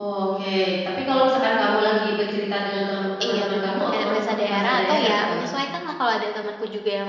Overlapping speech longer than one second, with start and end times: 3.2-5.4

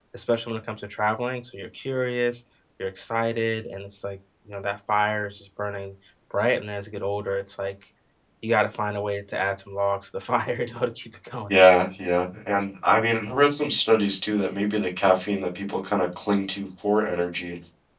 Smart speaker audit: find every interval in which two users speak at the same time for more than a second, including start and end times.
none

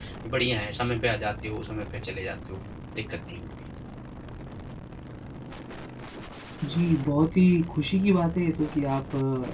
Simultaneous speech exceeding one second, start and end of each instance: none

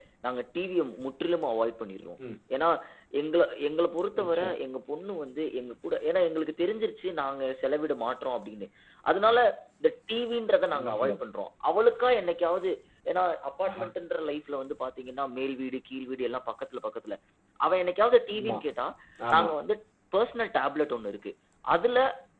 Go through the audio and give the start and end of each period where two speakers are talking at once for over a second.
none

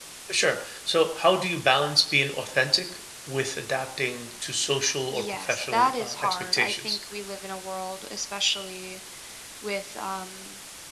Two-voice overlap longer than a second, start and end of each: 5.1-7.0

